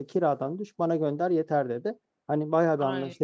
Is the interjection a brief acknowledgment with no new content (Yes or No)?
Yes